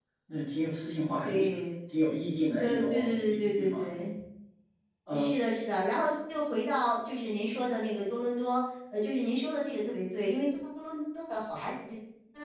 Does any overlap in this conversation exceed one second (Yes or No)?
Yes